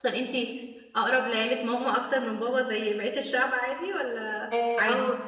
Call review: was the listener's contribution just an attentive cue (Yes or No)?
No